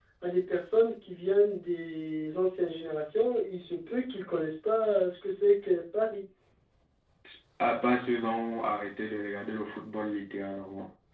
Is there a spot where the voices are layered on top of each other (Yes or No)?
No